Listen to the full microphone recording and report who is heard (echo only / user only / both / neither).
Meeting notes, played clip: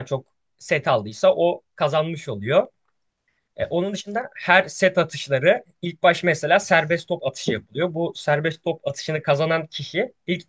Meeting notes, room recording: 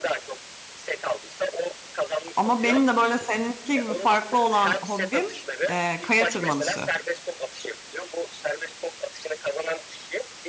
both